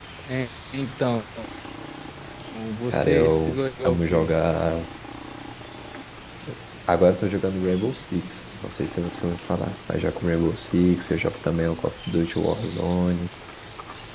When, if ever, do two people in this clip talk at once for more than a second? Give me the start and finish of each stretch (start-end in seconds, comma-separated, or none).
2.9-4.3